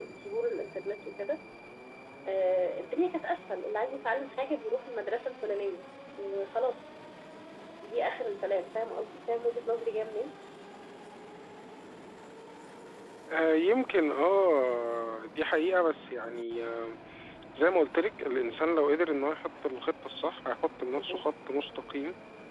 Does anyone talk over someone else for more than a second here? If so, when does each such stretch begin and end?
none

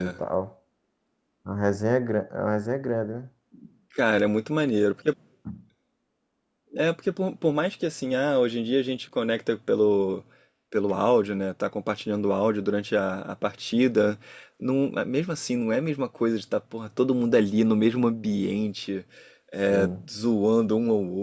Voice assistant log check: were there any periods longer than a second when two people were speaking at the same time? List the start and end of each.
none

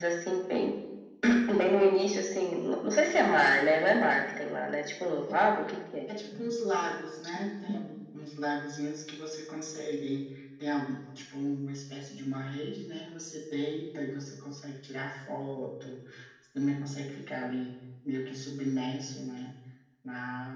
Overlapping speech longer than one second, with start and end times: none

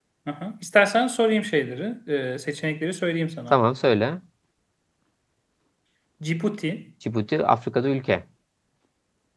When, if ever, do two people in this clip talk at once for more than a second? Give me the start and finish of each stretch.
none

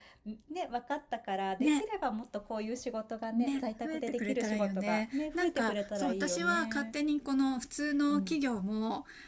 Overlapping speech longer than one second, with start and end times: 3.4-6.9

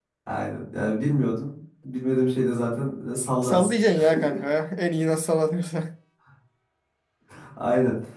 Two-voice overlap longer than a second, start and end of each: none

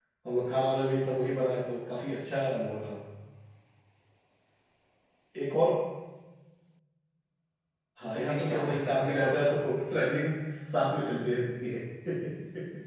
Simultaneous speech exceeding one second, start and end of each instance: 8.0-9.6

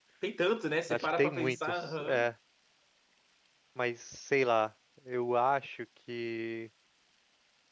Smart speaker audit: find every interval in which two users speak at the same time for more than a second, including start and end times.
0.9-2.3

